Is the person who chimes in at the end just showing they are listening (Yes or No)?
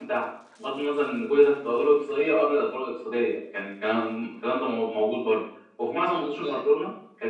Yes